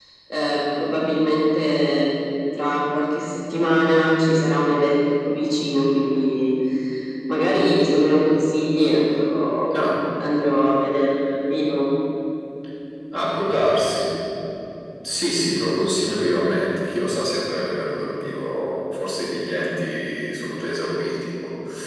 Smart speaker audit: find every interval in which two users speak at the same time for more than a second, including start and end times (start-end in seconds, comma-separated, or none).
none